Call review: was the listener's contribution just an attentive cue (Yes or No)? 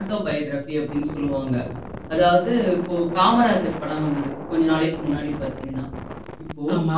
Yes